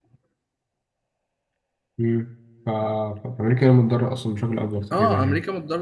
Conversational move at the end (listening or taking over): taking over